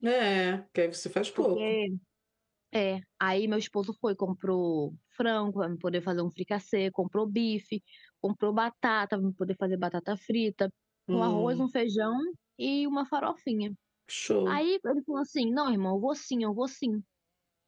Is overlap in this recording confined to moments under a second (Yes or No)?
Yes